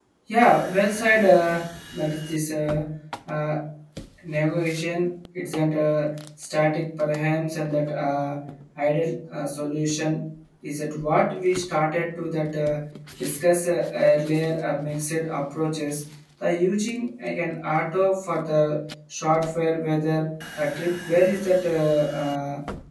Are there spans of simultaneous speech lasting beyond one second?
No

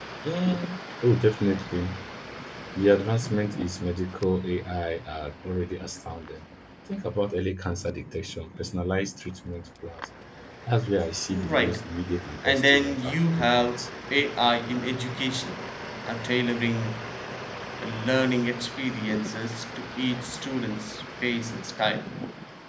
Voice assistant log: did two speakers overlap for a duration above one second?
Yes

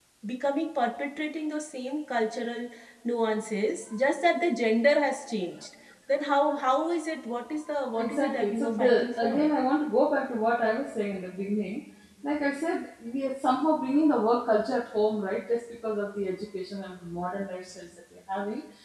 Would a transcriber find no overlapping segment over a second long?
No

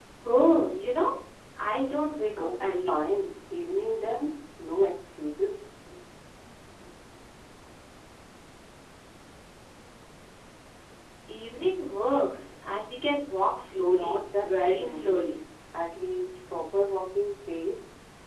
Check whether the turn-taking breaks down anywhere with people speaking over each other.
Yes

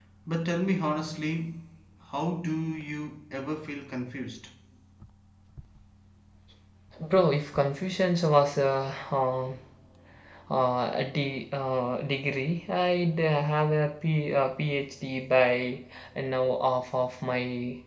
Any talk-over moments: No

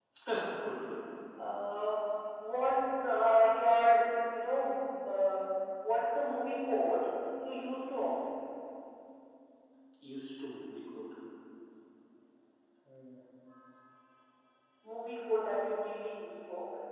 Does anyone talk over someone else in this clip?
No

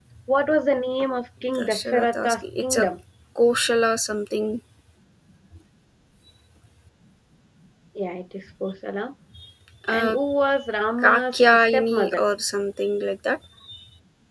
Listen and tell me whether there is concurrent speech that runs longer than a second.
Yes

